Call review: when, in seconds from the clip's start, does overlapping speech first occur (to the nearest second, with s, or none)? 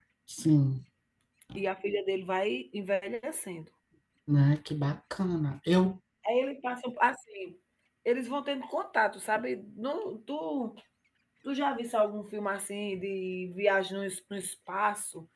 none